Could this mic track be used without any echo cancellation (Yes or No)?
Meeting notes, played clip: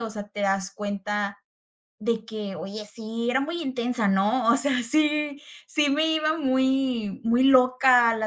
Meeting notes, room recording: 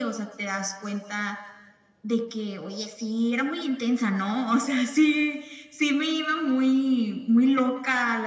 No